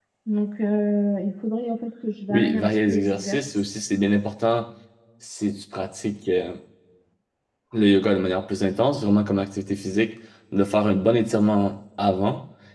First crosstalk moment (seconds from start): 2.3 s

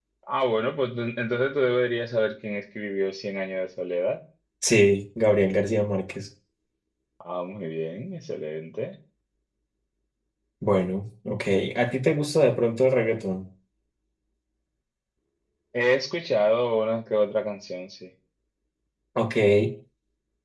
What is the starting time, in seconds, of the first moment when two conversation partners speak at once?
none

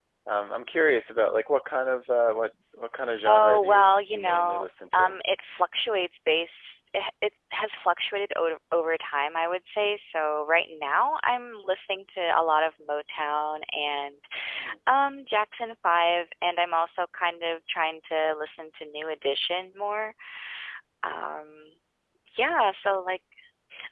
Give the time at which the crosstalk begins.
3.2 s

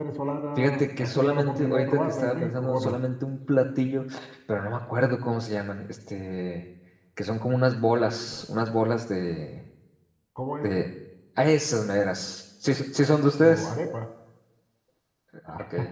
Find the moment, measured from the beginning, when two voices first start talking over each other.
0.6 s

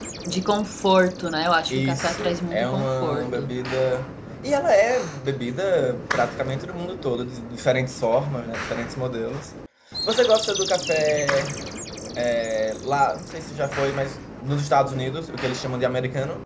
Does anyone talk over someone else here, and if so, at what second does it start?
1.7 s

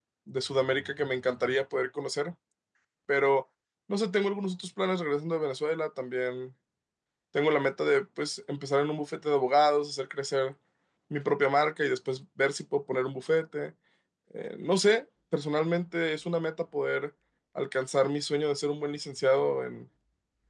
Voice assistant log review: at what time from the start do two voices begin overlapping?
none

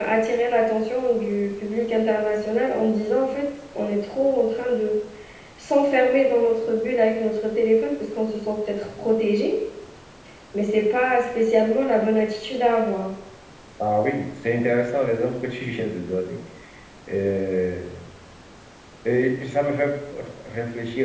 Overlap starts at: none

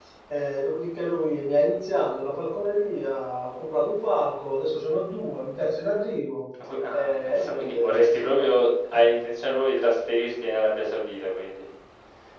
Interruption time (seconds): 6.9 s

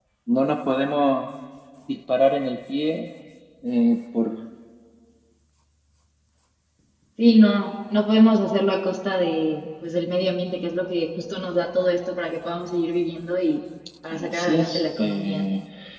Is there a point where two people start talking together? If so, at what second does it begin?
14.1 s

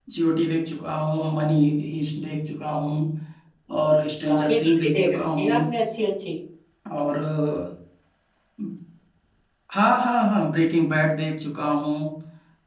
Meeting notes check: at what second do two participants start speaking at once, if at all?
4.3 s

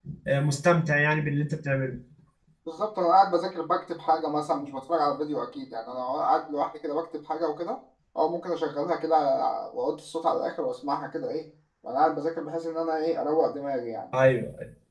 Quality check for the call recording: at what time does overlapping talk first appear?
none

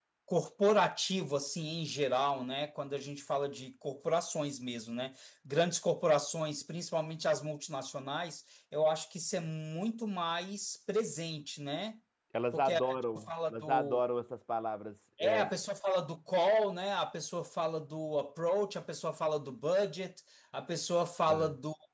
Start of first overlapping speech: 12.5 s

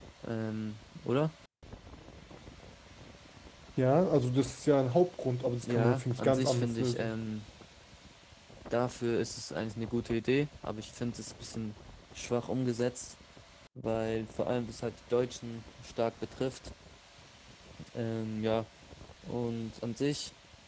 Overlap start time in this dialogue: 5.6 s

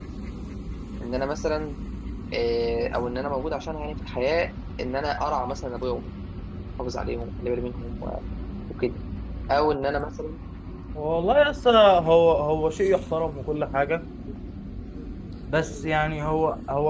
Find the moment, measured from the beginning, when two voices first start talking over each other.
none

